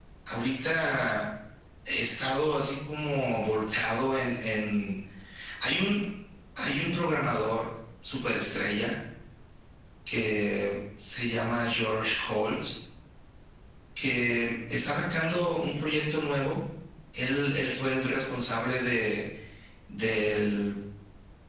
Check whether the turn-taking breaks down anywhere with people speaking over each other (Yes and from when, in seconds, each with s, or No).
No